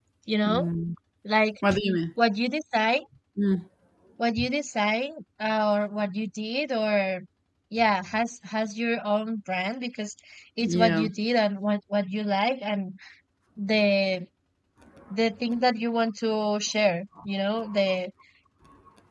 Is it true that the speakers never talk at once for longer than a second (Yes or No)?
Yes